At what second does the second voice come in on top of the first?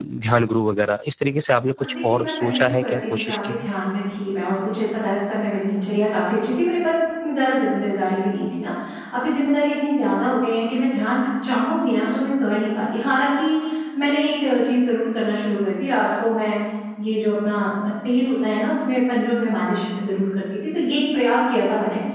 2 s

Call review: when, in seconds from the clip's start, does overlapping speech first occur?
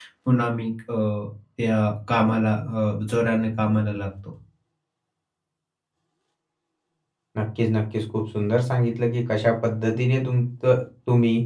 none

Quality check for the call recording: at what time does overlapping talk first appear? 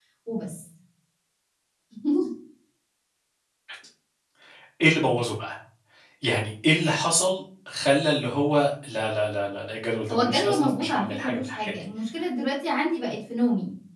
10 s

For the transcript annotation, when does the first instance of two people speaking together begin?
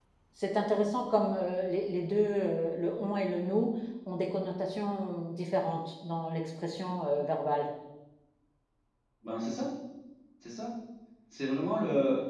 none

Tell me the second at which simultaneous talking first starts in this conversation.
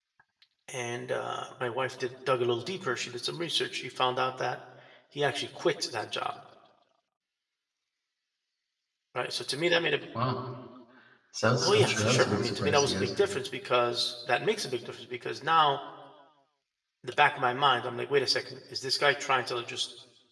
12 s

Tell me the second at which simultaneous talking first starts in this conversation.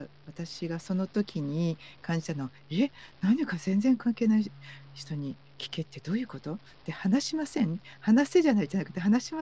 none

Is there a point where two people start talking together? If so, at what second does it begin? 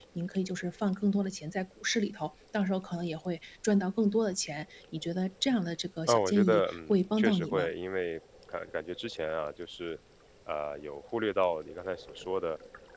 6 s

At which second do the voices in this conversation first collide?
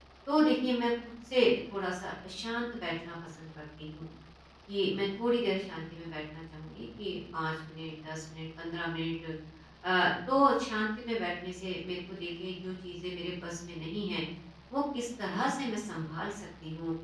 none

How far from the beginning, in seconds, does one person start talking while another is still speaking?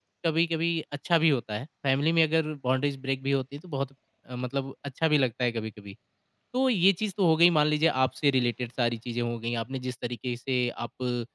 none

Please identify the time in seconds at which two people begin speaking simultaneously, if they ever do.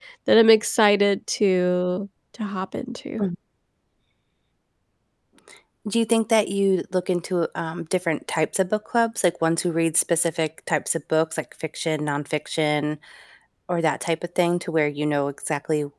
none

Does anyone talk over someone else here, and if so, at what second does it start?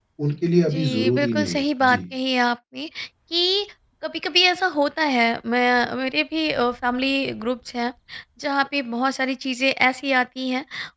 1 s

